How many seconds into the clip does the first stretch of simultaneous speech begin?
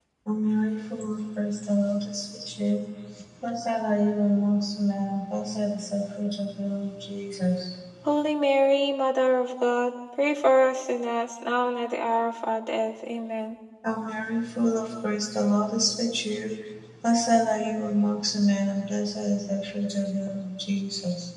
none

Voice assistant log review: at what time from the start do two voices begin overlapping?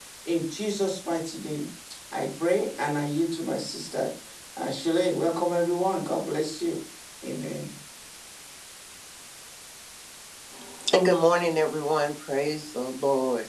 none

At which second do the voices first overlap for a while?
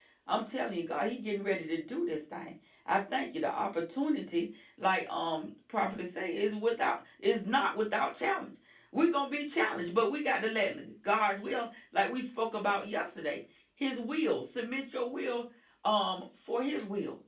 none

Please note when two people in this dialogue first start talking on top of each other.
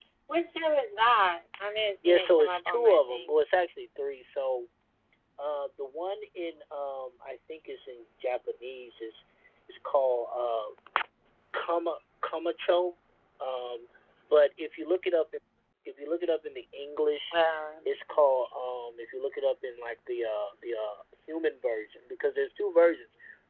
2.0 s

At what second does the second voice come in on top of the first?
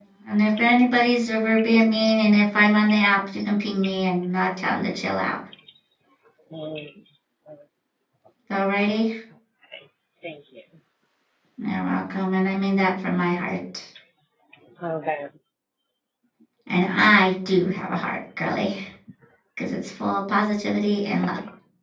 none

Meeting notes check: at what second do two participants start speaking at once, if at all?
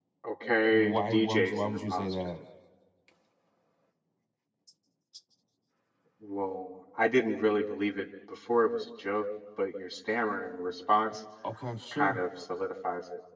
0.7 s

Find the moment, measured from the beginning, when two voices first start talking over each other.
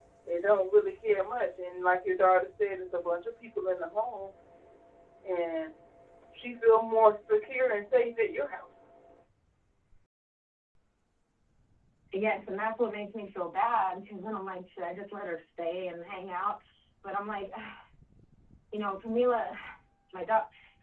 none

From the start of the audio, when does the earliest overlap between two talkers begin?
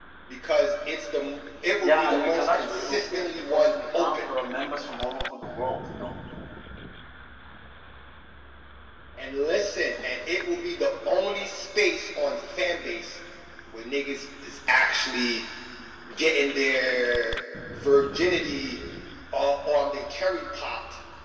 1.8 s

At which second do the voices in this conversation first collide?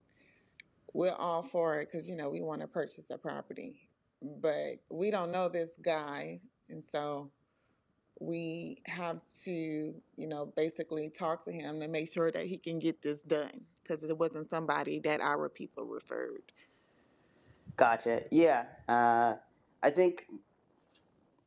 none

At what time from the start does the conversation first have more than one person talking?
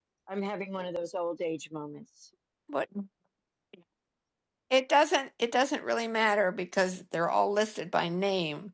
none

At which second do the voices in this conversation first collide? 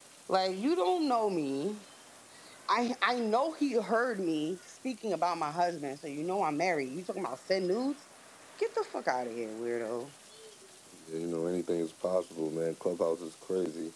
none

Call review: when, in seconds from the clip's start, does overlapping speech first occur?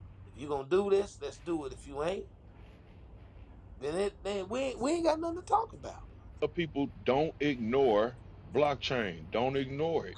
none

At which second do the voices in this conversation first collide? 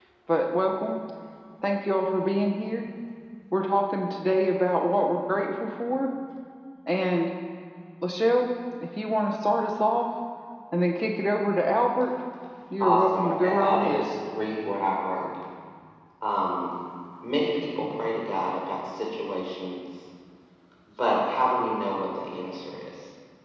12.8 s

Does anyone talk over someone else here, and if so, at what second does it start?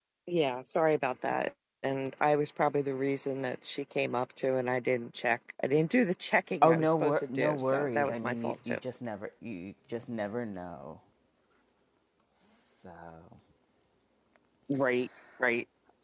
6.6 s

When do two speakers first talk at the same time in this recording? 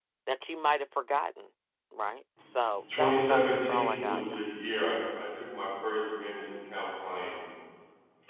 2.9 s

